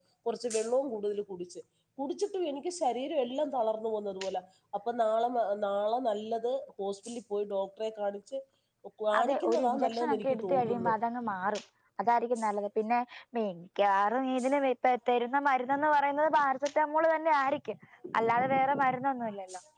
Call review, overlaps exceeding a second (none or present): present